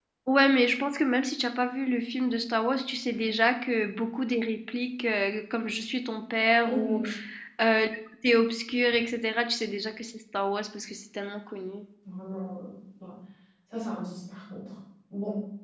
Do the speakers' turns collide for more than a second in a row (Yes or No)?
No